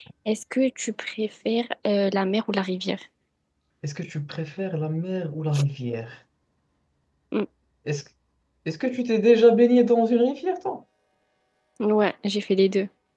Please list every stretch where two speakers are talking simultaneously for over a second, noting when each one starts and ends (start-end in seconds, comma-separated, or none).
none